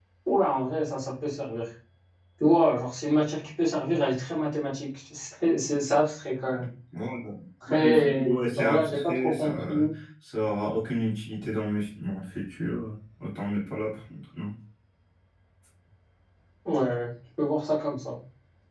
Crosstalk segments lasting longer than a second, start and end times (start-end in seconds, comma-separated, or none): 7.7-9.9